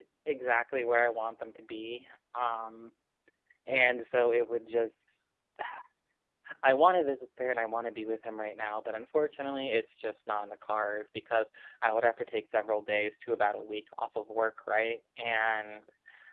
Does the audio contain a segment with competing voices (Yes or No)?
No